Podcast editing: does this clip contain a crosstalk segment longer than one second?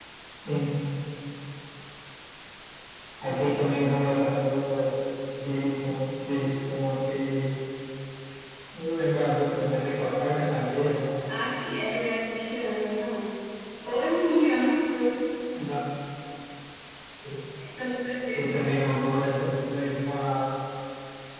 No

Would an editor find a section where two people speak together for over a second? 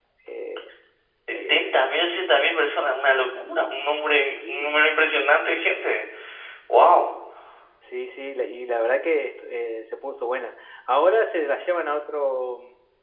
No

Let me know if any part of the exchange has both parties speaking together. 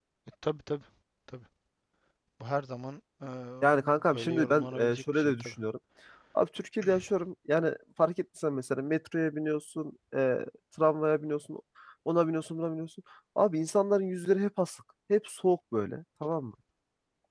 Yes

